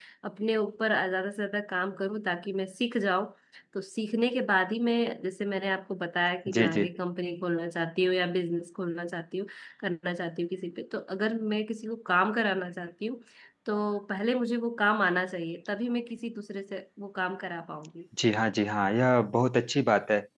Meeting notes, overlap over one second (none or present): none